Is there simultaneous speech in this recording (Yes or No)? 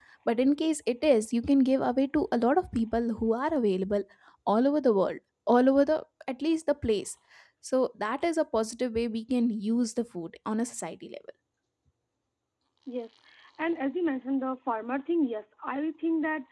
No